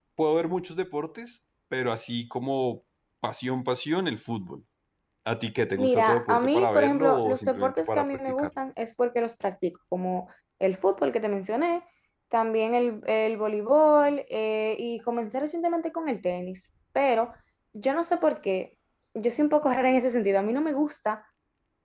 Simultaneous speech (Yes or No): Yes